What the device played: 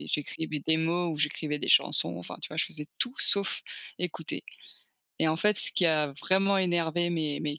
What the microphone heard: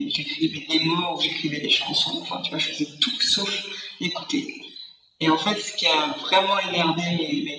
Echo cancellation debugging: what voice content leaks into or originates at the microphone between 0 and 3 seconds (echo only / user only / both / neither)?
echo only